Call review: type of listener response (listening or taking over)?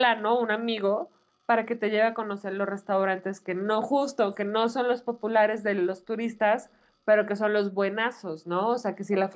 listening